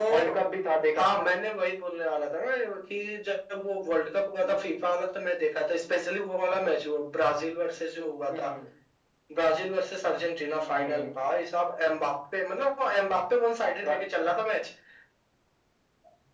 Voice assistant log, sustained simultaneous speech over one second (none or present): none